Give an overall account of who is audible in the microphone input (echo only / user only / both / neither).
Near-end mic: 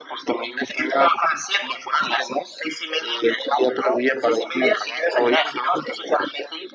echo only